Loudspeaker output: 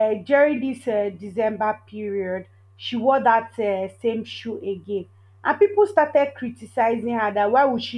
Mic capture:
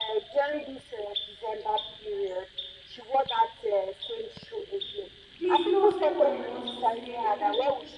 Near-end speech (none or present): present